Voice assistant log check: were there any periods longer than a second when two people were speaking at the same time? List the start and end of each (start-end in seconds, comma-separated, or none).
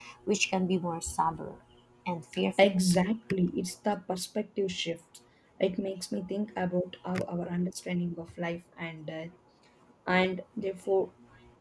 none